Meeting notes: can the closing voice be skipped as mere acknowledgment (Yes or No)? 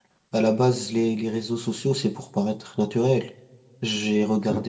Yes